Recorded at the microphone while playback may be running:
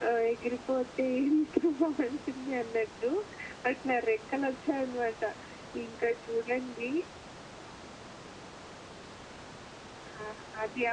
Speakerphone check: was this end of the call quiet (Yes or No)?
Yes